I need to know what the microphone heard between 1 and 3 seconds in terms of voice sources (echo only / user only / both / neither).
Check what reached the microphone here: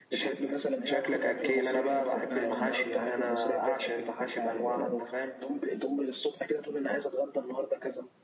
both